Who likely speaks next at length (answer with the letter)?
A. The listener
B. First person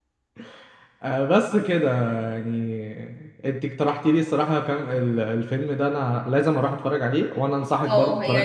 A